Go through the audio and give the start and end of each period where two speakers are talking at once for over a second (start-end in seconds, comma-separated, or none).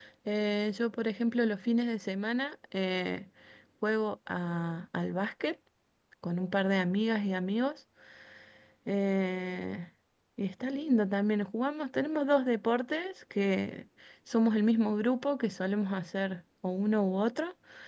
none